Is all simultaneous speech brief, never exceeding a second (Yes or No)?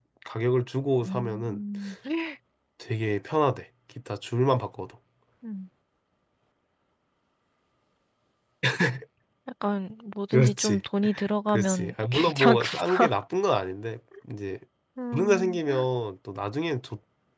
No